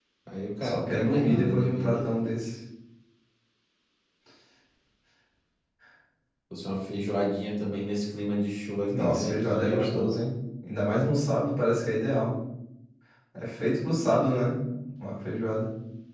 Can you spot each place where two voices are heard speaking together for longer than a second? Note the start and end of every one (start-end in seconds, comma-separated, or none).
0.6-2.0, 8.9-10.1